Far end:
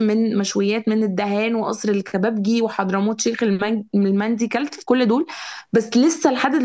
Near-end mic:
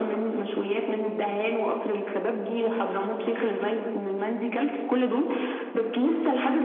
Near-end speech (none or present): none